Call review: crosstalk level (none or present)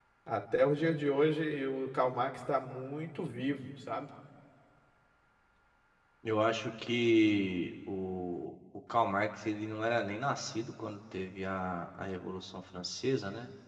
none